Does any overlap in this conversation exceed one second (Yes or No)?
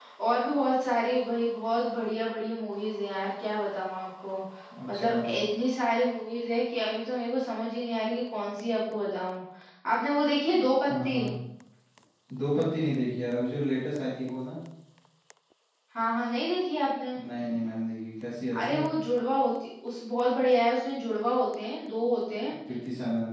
No